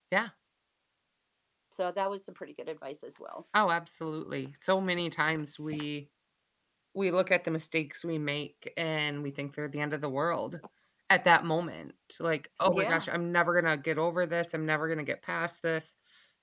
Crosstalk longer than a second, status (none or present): none